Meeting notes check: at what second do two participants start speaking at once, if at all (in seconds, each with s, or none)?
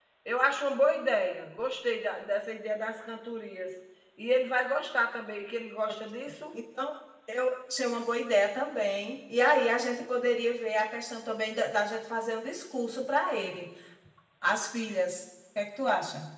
none